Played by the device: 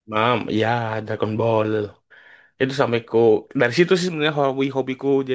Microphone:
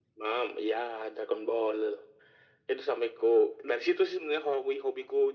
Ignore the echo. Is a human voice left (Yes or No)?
No